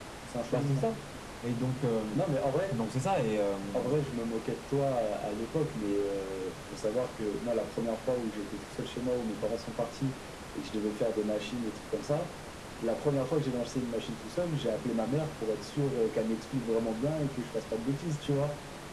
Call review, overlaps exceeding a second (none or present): none